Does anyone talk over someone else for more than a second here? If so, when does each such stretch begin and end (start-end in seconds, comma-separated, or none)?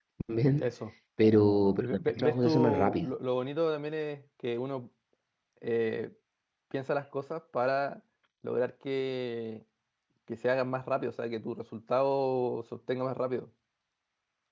1.8-3.1